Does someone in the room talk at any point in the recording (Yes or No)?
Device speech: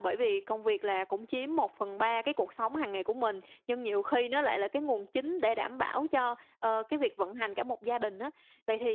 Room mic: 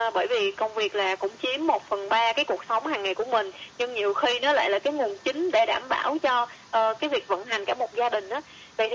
No